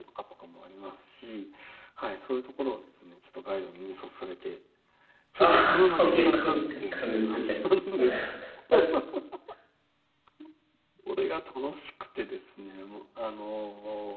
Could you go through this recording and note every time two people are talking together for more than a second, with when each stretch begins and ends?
5.4-7.4

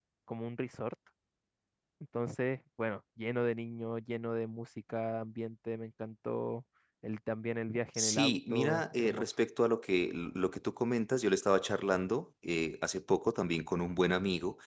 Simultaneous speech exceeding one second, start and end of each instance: 8.0-9.2

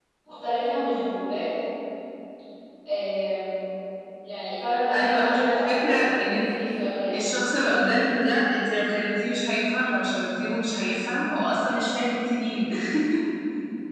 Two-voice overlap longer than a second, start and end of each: 4.9-6.4

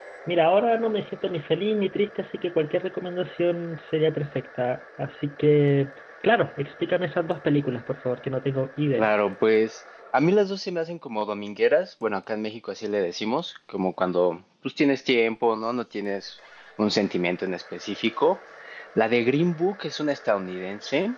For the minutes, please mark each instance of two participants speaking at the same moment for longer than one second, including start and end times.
none

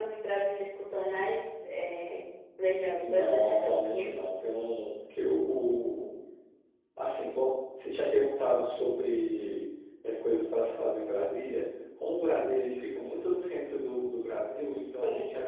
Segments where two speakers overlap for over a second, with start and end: 3.0-4.5

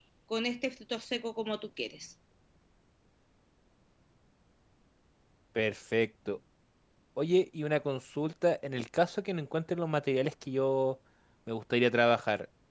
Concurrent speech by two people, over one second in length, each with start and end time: none

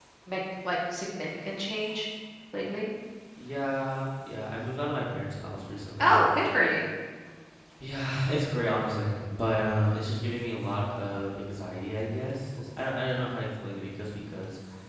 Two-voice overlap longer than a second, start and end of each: none

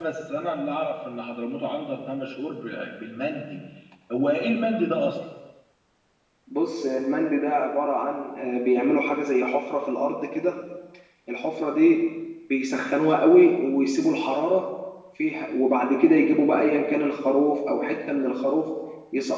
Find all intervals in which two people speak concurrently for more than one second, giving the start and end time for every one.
none

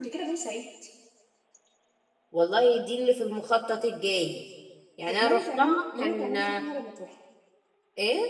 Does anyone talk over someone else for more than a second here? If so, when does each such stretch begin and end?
5.1-6.6

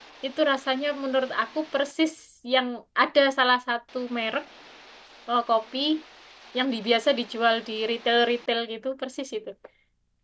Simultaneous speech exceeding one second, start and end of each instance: none

